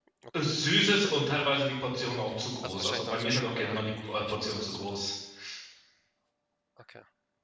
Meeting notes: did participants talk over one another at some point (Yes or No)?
Yes